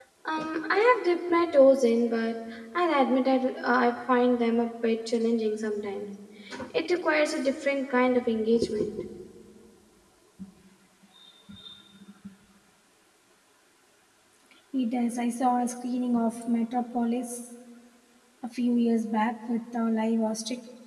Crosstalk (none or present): none